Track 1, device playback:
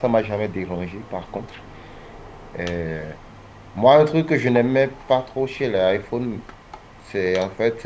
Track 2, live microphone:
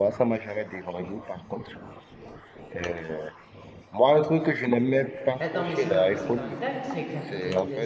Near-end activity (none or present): present